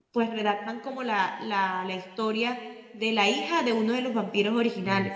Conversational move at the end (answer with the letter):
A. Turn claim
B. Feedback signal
A